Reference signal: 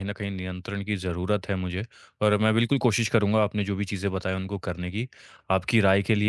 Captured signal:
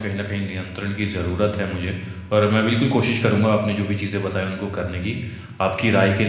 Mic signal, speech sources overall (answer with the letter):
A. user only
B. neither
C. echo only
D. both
C